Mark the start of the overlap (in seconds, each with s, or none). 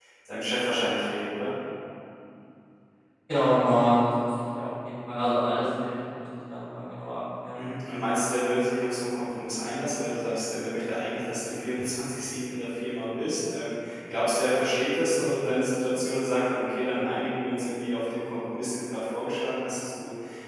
none